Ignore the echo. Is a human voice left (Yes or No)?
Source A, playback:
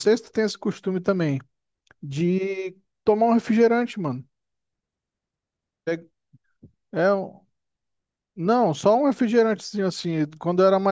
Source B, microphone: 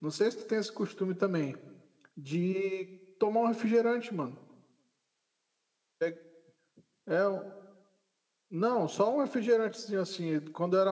No